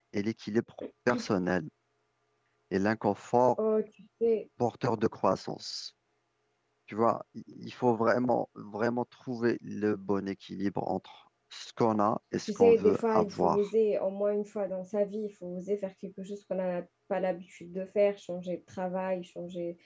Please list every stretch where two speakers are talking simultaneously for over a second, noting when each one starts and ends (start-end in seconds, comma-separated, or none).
12.5-13.7